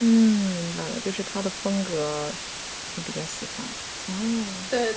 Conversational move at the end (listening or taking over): taking over